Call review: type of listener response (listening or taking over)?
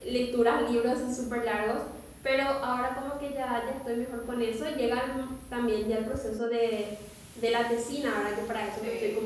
listening